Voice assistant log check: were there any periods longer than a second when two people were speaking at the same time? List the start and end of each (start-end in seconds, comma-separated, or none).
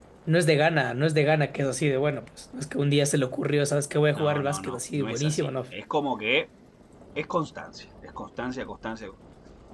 4.2-5.5